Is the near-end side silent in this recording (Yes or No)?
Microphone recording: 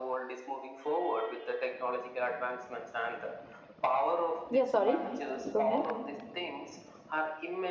No